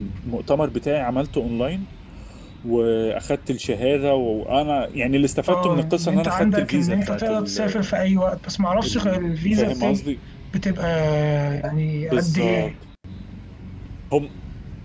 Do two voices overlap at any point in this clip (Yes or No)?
Yes